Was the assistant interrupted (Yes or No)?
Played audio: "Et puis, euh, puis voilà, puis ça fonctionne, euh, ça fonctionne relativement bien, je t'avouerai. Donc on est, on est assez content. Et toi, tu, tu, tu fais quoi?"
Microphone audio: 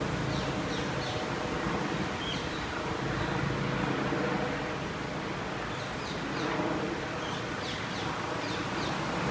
No